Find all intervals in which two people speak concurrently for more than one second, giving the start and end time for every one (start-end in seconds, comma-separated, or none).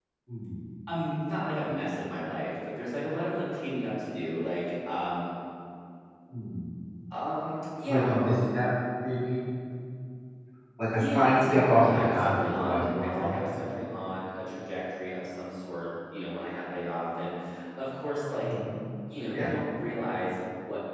11.0-13.4